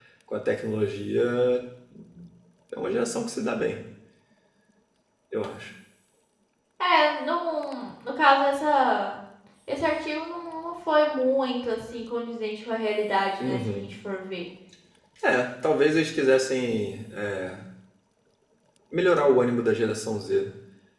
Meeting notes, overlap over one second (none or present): none